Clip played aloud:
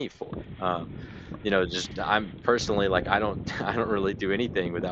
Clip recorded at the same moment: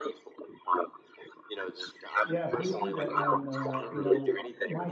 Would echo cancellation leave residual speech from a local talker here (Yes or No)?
Yes